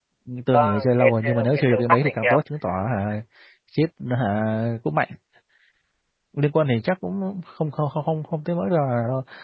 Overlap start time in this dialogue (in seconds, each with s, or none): 0.5 s